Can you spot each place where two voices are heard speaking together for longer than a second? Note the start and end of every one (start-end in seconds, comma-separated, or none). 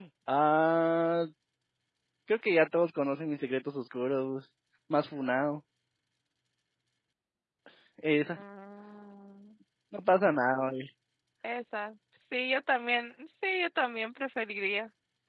none